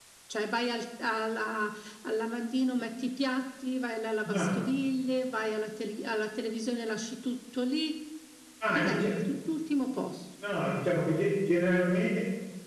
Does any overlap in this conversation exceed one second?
No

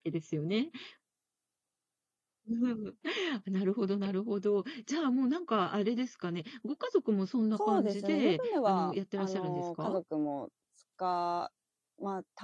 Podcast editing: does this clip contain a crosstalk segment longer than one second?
Yes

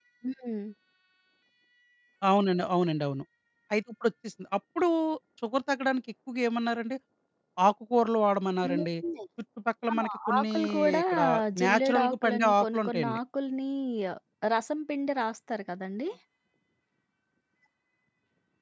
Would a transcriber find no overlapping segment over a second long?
No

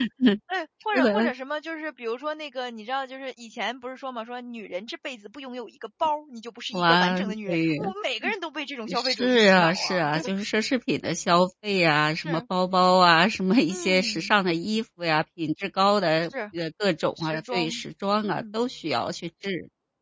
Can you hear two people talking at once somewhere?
Yes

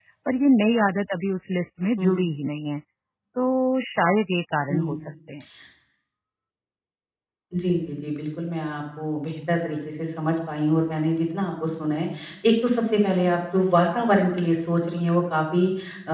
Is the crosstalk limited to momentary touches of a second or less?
Yes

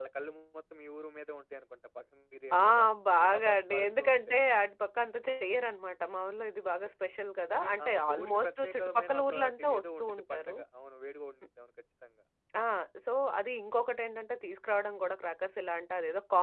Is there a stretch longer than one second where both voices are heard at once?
Yes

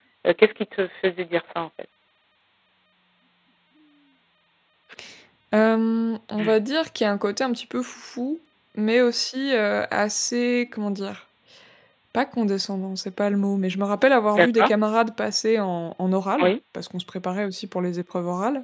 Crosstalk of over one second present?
No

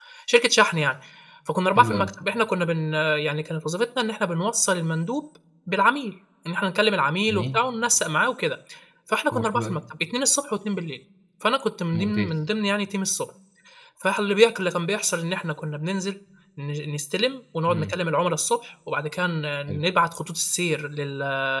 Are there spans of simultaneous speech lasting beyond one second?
No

